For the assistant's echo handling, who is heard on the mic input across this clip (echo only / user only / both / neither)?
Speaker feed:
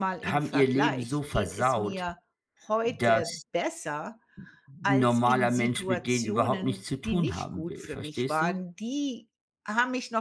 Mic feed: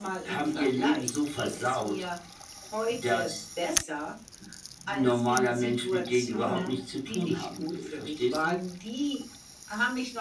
both